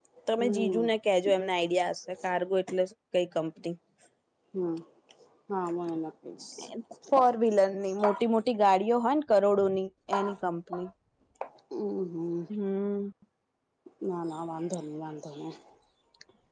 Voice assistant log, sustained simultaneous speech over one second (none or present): none